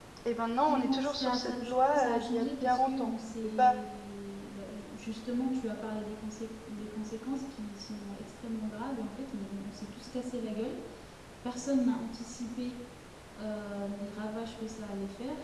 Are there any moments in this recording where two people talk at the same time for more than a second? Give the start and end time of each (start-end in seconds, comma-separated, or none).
0.7-3.8